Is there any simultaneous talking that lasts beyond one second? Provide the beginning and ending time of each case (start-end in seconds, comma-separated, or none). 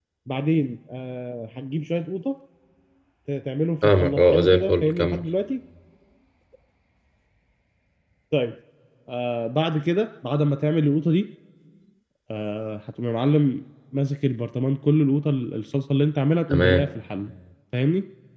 3.8-5.2